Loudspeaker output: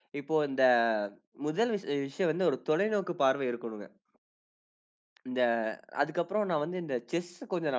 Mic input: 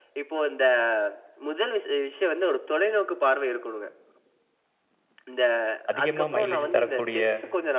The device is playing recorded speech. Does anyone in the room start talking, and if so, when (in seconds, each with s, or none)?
5.9 s